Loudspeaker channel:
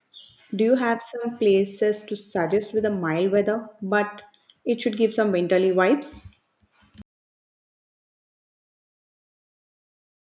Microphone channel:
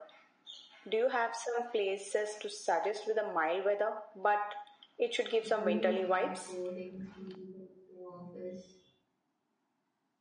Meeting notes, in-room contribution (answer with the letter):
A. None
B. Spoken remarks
B